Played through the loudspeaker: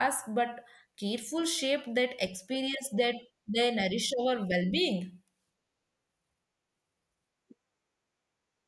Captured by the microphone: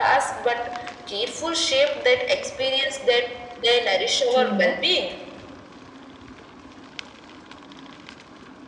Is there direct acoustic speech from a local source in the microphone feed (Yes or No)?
Yes